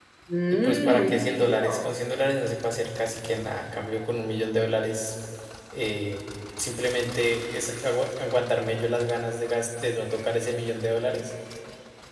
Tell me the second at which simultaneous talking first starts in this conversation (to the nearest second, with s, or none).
1 s